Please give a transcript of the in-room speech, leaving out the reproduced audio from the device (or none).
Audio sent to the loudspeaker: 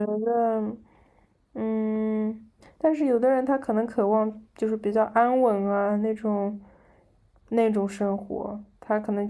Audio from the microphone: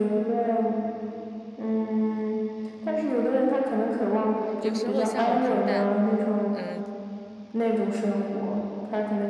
有时候向往平淡，嗯，